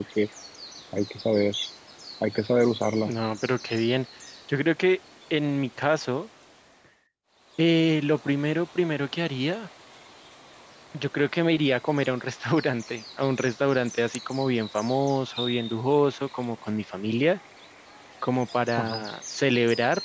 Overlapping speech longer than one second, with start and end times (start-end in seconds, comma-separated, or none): none